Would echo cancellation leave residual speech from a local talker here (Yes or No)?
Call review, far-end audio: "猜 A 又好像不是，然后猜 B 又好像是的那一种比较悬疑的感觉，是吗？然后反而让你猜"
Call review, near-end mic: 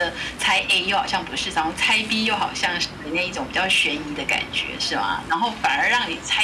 No